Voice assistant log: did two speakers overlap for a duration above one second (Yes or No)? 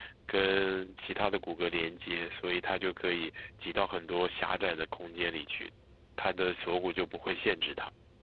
No